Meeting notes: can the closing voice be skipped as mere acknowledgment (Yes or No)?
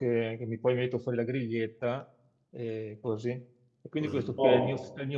Yes